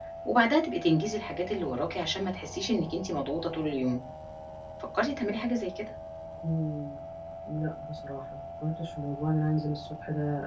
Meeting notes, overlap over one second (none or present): none